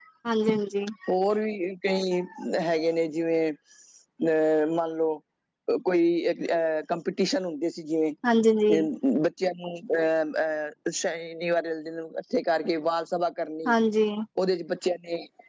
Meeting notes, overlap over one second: none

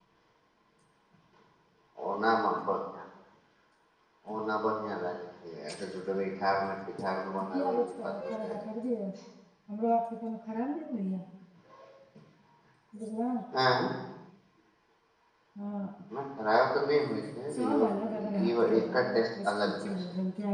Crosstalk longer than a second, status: present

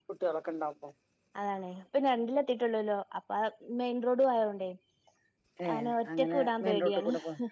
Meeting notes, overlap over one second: present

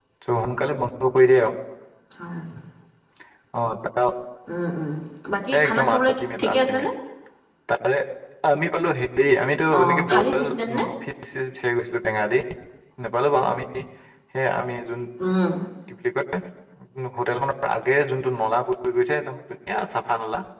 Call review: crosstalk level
present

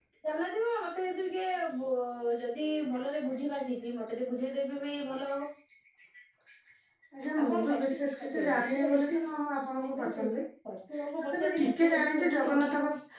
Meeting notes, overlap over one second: present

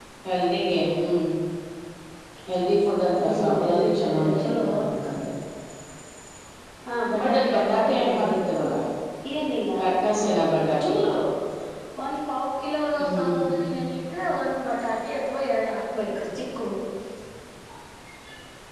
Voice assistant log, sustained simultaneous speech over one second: present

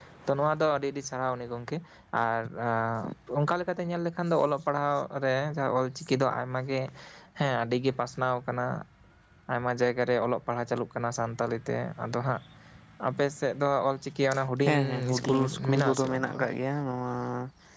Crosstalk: present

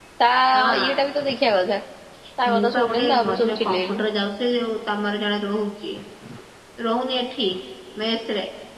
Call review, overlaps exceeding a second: present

